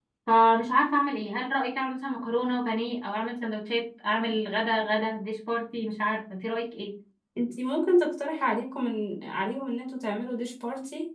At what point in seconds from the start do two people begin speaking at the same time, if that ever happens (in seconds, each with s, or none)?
none